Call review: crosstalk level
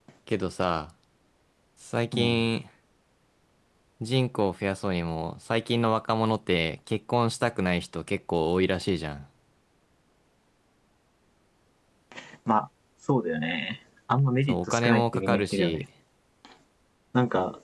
present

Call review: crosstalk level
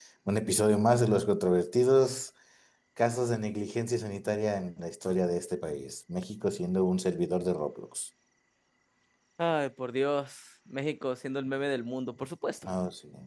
none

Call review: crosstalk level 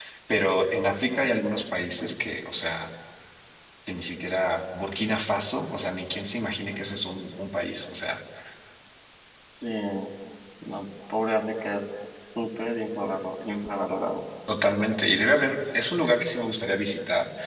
none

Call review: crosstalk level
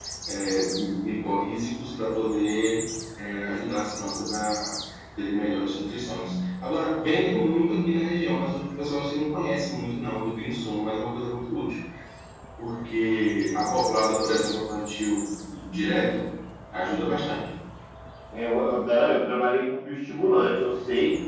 none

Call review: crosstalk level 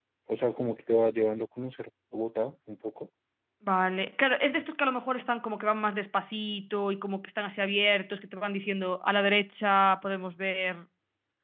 none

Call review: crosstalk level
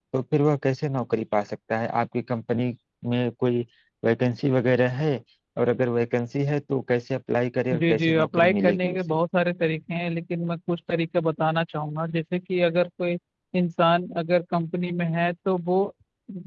present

